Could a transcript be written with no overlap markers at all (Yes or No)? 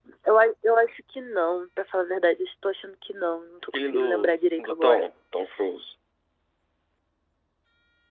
No